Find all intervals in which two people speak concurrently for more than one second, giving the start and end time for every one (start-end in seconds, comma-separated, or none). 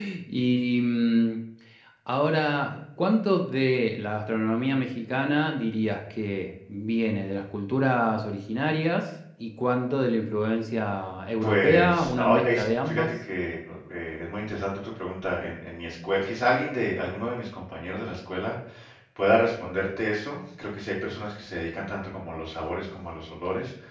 11.4-13.0